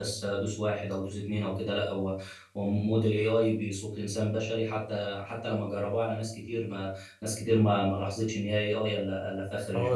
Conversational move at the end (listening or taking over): taking over